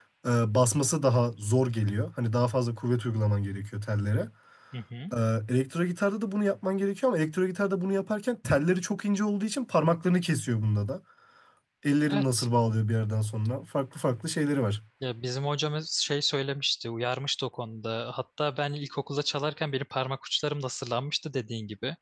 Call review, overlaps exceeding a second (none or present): none